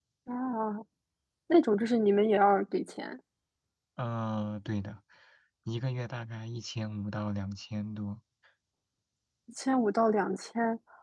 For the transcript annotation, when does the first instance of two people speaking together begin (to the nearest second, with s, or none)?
none